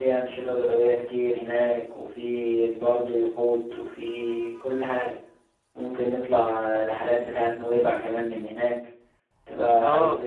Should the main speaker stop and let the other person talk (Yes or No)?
Yes